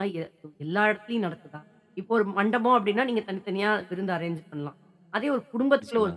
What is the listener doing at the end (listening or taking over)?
listening